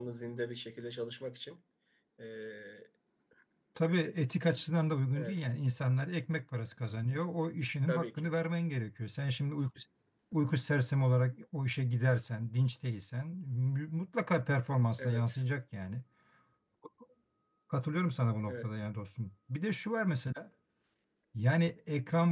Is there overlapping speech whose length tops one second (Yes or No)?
No